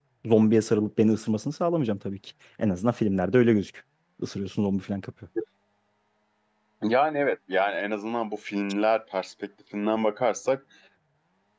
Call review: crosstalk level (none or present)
none